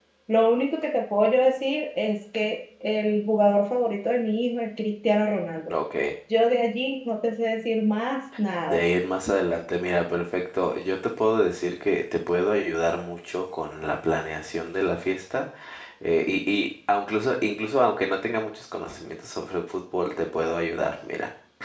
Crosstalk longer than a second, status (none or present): none